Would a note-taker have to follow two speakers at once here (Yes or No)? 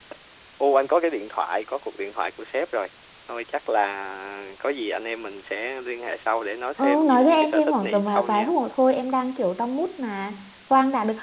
Yes